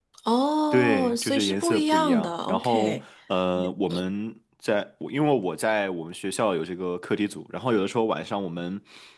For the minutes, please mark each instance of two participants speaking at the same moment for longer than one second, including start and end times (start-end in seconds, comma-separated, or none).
0.7-3.0